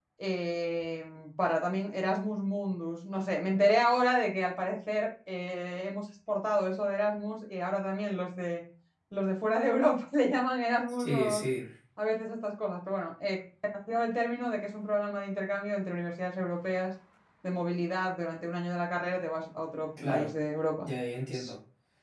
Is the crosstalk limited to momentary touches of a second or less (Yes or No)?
Yes